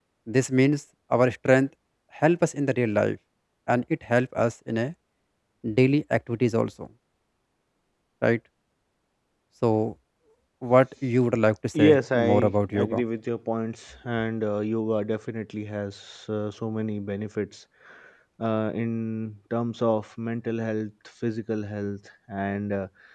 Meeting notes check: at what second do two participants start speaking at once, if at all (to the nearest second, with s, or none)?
12 s